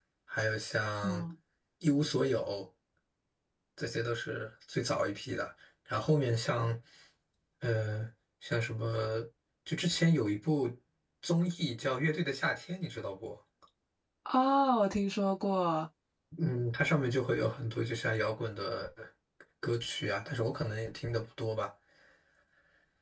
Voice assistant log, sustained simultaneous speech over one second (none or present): none